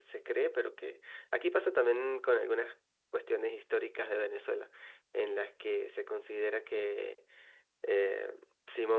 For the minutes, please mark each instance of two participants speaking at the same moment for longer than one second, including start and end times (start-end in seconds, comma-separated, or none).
none